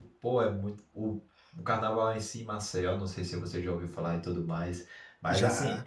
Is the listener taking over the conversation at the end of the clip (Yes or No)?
No